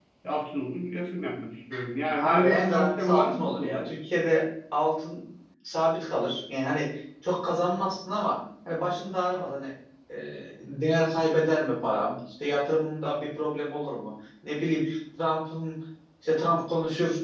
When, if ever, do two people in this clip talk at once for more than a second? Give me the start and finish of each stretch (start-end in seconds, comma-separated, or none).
2.2-3.9